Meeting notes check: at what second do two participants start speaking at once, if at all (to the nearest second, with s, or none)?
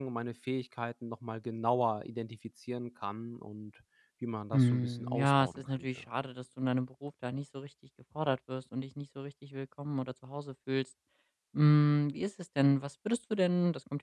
5 s